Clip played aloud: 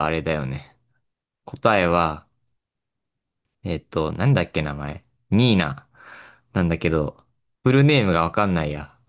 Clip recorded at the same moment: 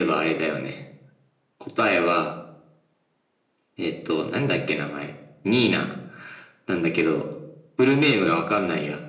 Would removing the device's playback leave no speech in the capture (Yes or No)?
Yes